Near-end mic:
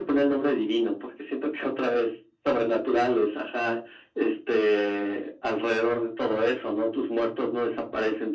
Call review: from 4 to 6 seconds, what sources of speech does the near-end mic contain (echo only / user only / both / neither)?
echo only